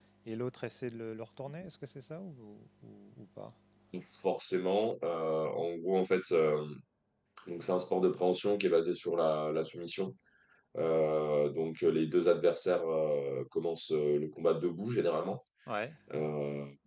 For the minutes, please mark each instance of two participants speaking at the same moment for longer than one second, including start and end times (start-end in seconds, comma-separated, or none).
none